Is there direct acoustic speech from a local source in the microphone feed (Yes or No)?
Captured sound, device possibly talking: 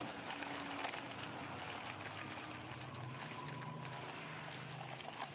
No